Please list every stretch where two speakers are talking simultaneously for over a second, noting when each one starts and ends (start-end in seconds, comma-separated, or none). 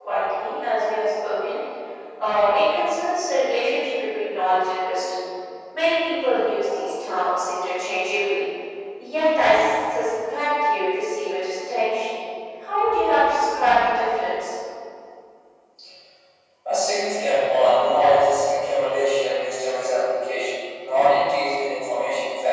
none